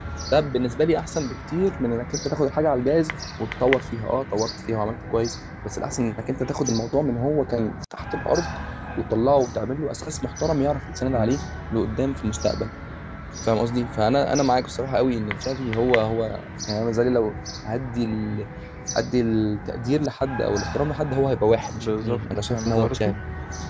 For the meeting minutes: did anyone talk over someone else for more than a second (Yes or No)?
Yes